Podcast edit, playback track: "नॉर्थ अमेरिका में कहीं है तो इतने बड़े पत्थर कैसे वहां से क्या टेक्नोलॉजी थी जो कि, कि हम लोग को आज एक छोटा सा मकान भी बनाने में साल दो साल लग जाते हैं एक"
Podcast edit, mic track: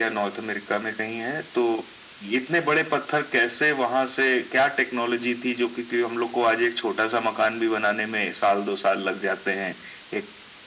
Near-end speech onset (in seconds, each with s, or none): none